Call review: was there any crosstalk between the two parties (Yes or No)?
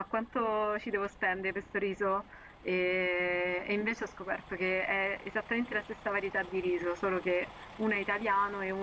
No